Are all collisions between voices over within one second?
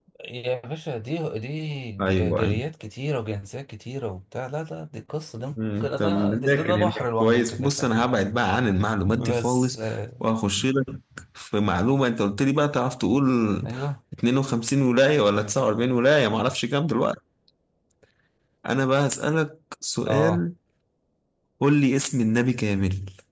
No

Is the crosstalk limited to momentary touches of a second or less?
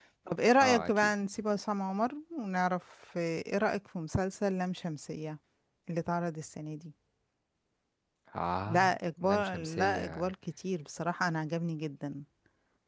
No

